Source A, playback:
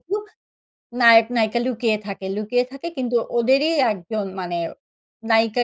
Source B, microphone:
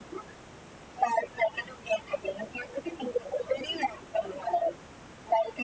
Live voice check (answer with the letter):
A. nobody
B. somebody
A